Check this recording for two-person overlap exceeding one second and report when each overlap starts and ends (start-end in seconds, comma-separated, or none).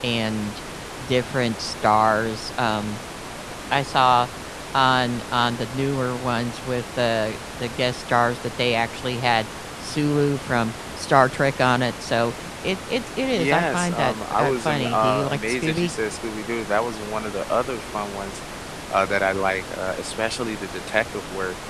13.3-15.9